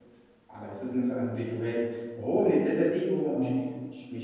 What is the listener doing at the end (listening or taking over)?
listening